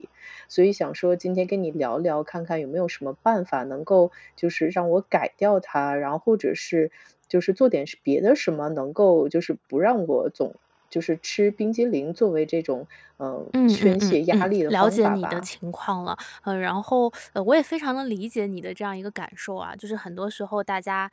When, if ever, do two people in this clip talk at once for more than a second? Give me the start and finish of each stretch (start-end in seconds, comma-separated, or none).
13.7-15.5